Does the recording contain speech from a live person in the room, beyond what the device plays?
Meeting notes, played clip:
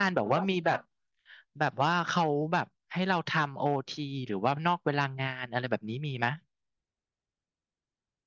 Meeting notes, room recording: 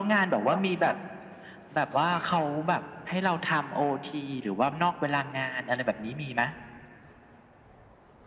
No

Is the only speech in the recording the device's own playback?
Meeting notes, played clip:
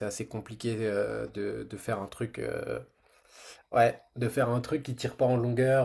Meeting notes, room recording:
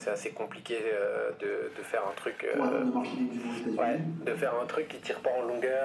No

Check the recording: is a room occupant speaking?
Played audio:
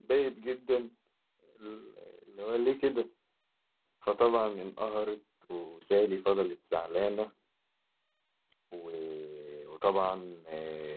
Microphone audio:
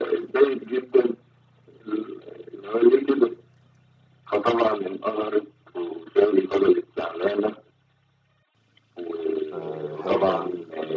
Yes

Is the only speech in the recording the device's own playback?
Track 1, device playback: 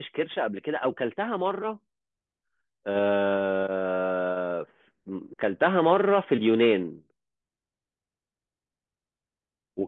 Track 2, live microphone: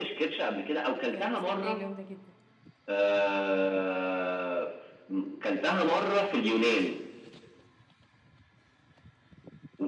No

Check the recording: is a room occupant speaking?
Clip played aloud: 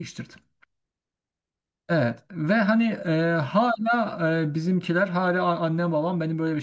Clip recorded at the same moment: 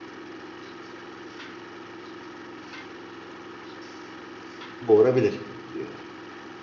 Yes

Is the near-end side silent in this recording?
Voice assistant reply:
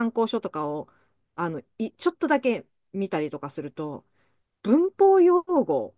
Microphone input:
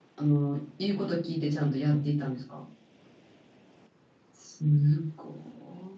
No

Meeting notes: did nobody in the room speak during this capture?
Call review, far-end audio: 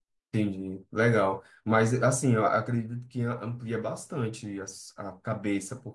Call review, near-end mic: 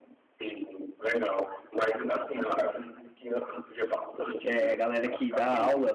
No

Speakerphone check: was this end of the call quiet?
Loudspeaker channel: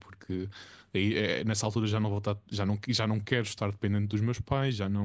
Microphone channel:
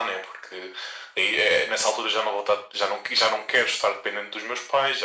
Yes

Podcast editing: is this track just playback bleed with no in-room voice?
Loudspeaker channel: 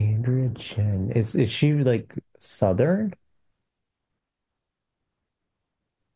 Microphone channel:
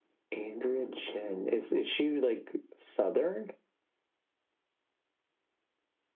Yes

